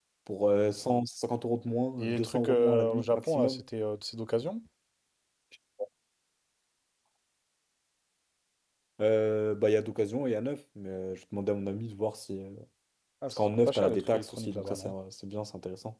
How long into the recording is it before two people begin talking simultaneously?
2.0 s

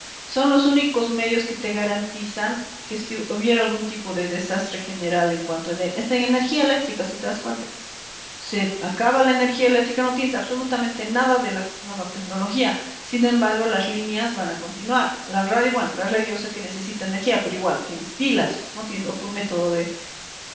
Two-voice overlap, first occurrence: none

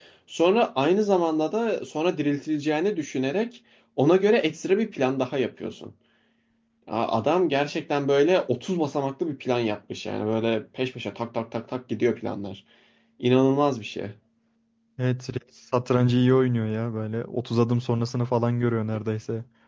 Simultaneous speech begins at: none

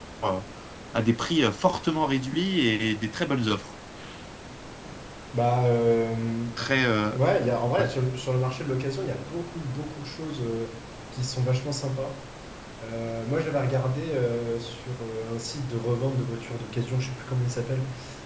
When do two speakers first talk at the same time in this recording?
none

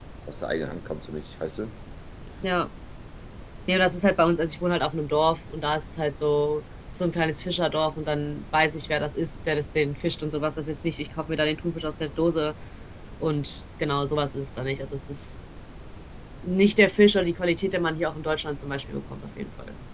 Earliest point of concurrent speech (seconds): none

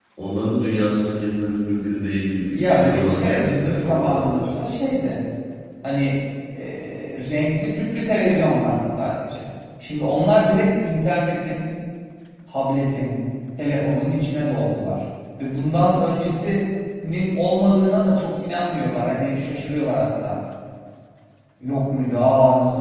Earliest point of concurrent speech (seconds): 2.4 s

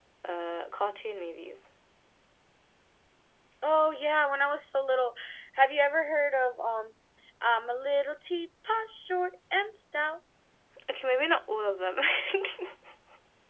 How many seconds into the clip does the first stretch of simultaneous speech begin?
none

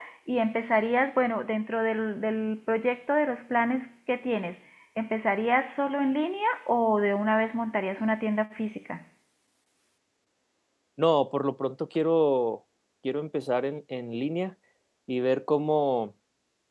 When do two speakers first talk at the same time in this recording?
none

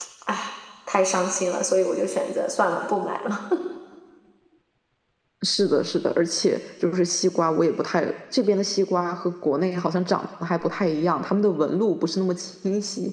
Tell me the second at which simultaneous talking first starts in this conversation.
none

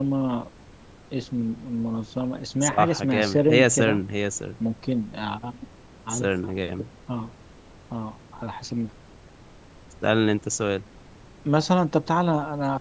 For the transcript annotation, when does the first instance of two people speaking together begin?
2.6 s

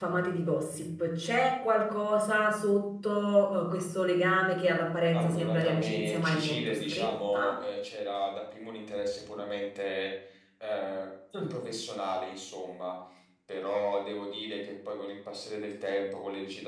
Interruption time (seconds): 5.1 s

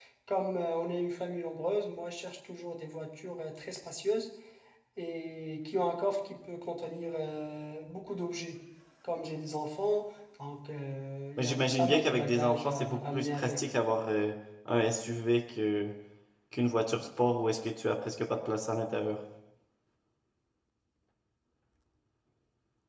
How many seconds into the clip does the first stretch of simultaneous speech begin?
11.4 s

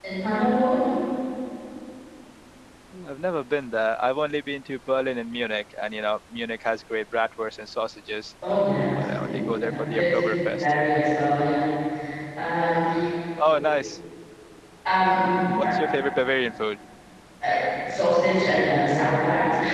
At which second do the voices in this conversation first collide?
8.9 s

